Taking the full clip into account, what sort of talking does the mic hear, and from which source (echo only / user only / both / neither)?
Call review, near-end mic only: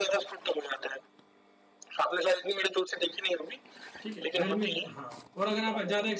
both